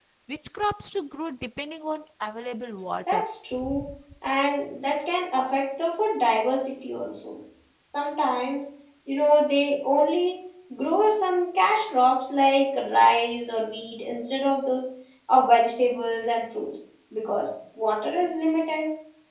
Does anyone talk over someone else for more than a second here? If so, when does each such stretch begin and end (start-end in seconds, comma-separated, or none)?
none